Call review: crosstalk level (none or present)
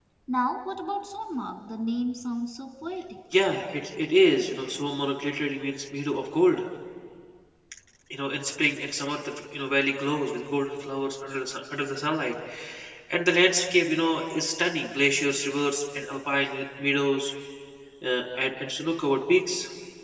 none